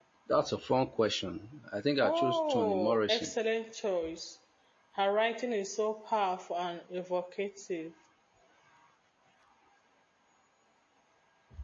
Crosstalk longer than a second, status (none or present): present